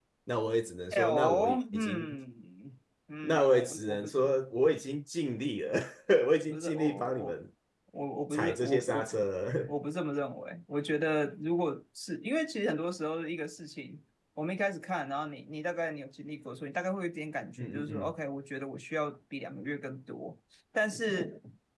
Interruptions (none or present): present